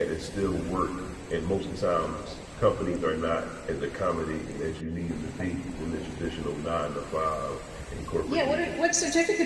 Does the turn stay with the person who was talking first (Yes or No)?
No